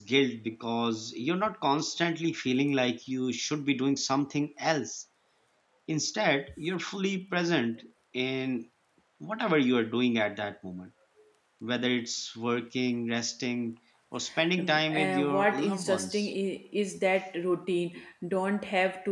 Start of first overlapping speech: 14.6 s

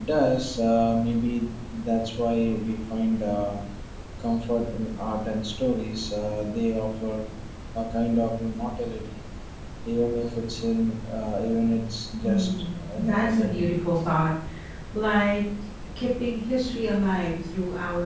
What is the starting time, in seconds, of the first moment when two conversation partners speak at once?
12.2 s

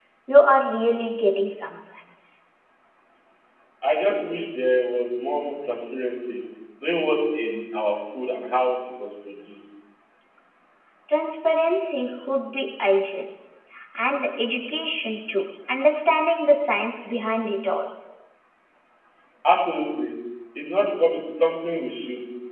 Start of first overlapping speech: none

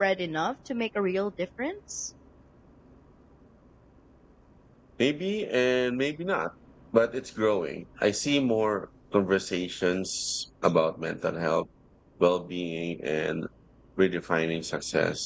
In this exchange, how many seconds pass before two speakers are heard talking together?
none

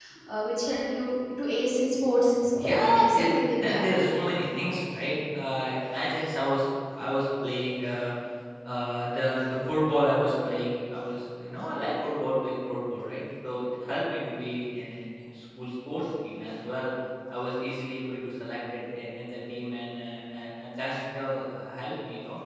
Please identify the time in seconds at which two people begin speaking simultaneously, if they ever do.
2.5 s

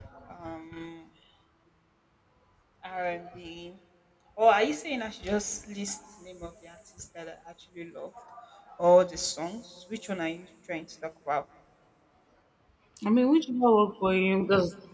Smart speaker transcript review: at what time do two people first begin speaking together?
none

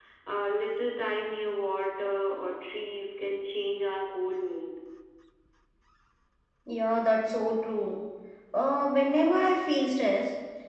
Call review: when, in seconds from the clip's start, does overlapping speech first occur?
none

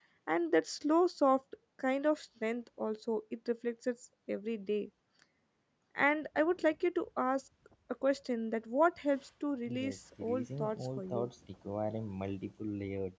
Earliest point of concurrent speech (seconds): 9.7 s

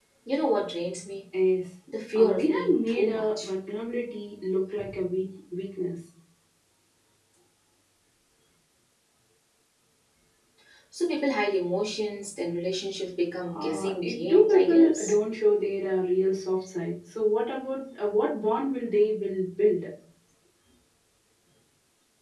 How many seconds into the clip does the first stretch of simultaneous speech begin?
2.1 s

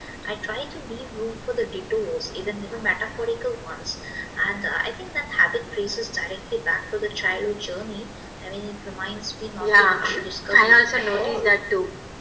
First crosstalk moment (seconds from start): 9.6 s

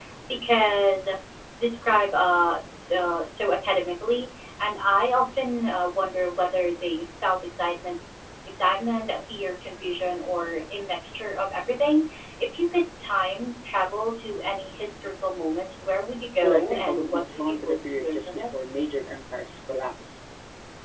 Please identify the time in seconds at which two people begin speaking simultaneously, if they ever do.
16.4 s

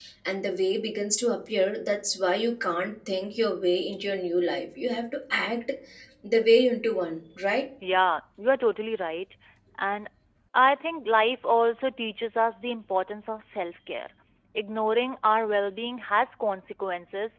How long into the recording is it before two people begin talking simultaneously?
none

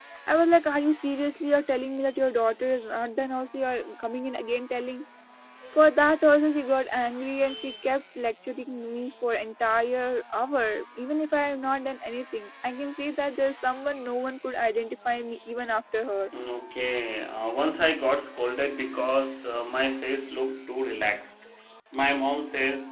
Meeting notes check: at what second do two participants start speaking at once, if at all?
none

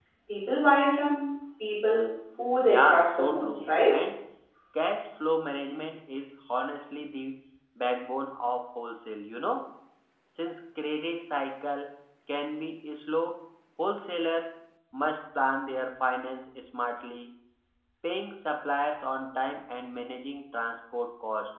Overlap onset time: 2.6 s

